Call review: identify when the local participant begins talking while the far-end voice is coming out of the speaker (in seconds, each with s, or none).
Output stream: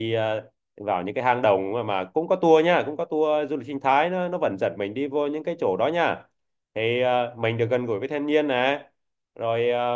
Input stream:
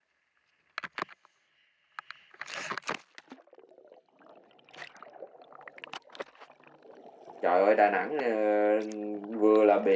7.4 s